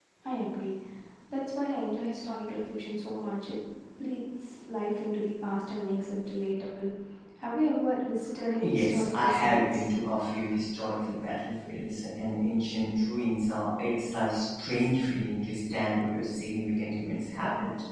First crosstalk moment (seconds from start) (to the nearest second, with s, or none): 9 s